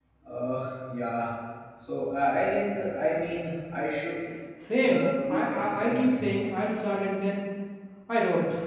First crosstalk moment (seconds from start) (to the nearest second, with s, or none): 5 s